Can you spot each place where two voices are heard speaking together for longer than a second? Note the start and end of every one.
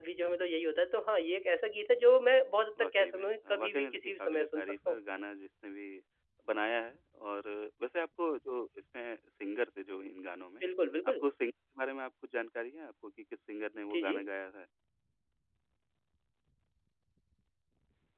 2.8-5.0

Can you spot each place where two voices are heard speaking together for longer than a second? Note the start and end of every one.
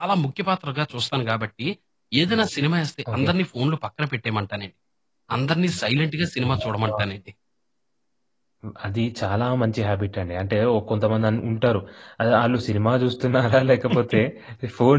none

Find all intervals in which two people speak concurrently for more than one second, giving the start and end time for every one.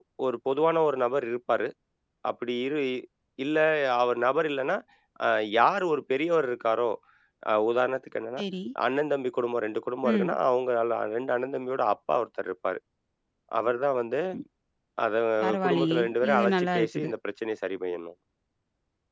15.7-17.1

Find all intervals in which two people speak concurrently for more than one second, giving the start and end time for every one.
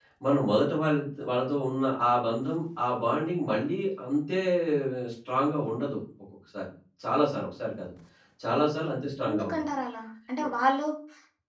none

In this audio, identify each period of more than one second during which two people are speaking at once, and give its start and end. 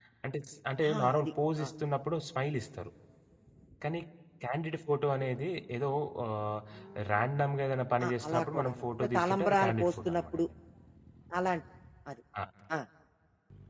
8.0-10.4

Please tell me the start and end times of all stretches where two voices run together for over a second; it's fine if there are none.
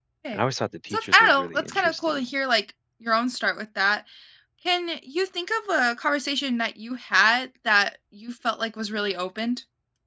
0.9-2.2

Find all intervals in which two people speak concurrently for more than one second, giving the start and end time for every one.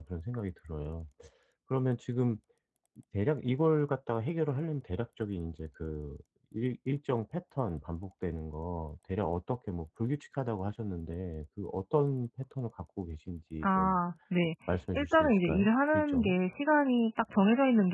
14.9-16.3

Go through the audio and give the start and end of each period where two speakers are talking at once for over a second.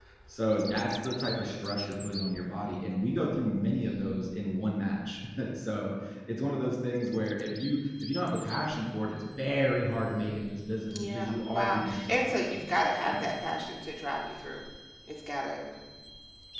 11.1-12.8

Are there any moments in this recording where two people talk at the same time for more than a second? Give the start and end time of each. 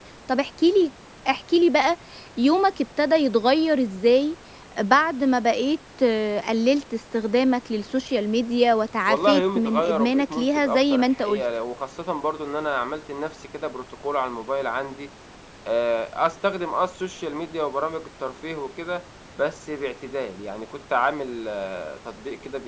9.1-11.4

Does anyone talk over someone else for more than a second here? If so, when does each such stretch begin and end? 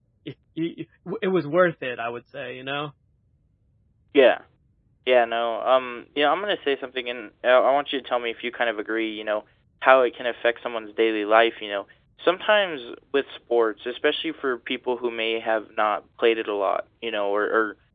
none

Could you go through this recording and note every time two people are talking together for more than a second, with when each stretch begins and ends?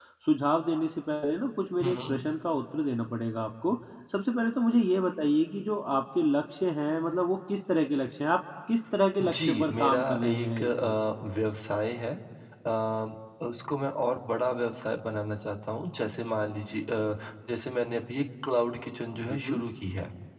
9.2-10.9

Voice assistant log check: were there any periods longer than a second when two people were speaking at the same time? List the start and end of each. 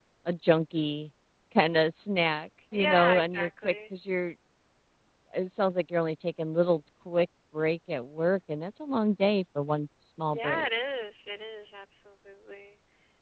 2.7-3.9

